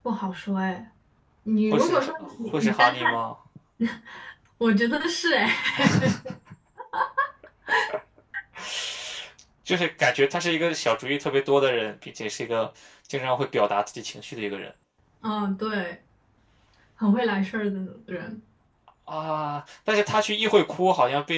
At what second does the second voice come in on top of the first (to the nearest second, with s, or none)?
2 s